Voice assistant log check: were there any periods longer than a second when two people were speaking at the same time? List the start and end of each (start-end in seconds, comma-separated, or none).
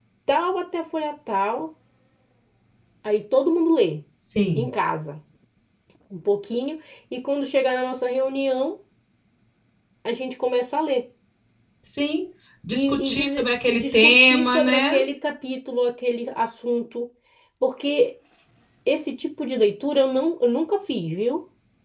12.7-15.0